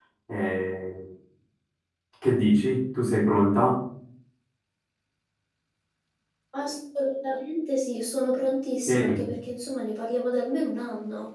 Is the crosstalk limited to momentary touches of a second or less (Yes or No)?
Yes